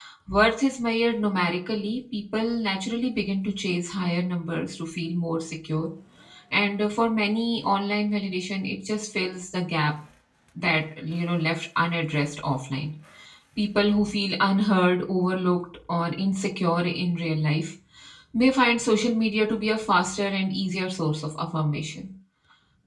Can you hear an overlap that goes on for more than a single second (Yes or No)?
No